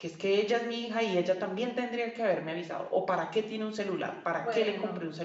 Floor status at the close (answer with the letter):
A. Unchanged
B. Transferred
B